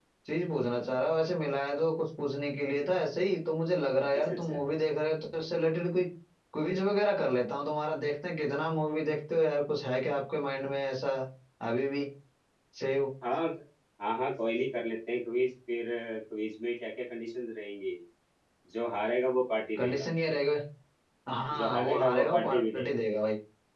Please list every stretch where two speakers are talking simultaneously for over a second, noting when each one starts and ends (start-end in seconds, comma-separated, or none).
21.6-22.9